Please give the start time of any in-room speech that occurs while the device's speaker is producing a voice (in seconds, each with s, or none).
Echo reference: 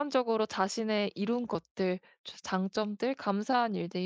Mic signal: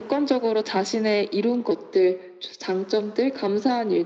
none